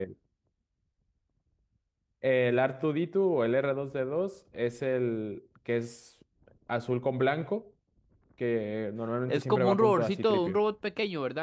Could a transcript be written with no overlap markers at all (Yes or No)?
No